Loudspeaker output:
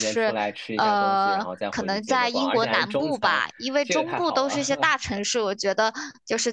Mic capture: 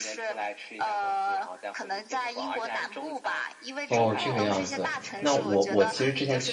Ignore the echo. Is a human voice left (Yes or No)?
Yes